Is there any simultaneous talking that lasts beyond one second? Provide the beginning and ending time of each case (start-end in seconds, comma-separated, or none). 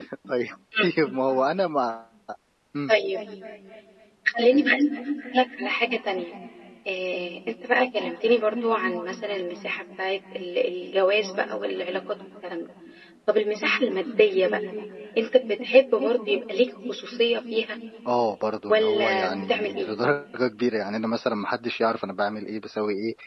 18.7-19.9